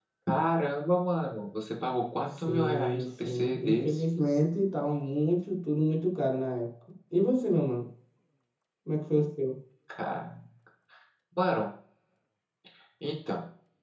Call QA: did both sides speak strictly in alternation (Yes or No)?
No